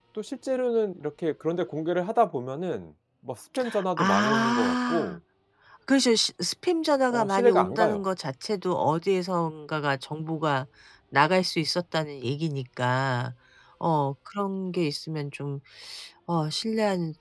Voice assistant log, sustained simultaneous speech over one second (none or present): present